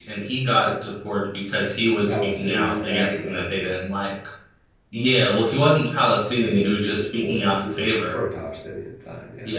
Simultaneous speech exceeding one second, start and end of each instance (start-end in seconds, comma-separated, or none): 1.9-3.4, 6.4-8.2